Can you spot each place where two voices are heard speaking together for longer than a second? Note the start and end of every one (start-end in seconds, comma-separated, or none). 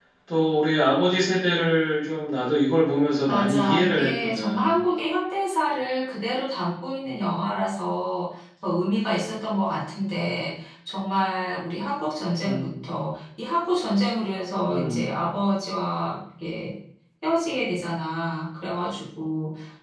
3.3-4.8